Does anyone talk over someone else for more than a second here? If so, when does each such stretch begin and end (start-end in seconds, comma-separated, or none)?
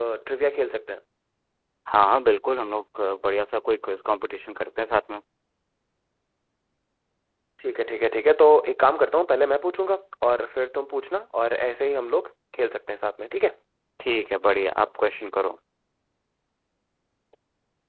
none